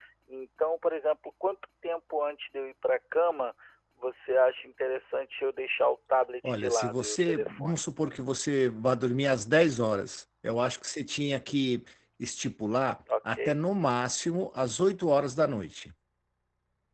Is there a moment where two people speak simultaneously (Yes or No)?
Yes